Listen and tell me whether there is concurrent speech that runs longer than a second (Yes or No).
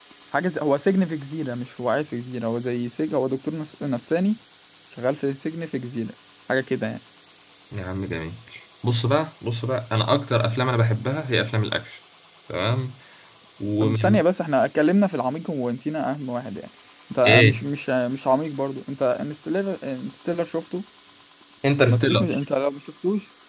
No